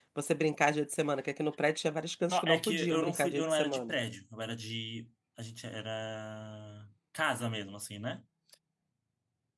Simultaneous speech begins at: 2.3 s

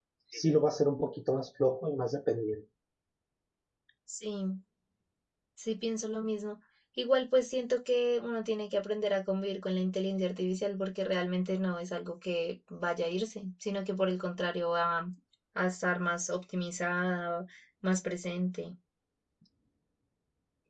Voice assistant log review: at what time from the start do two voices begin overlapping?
none

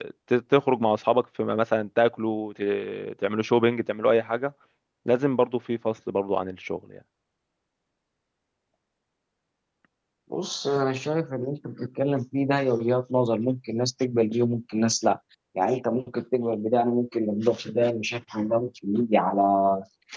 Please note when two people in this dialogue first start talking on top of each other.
none

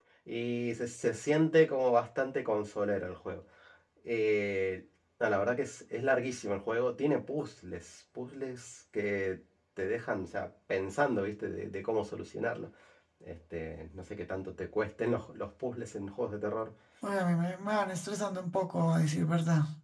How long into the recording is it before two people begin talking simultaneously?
none

